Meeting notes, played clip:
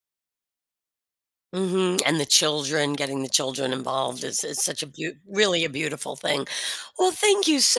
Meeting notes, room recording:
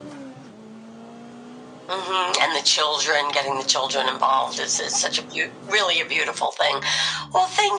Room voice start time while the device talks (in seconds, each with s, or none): none